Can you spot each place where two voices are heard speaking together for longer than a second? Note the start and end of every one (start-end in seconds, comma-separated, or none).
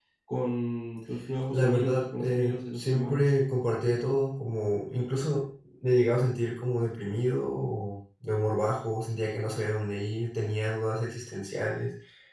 1.5-3.3